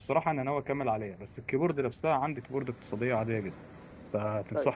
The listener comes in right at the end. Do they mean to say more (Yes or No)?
No